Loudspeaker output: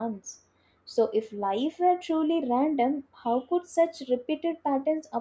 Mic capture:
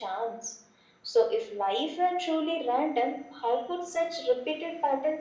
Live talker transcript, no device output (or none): none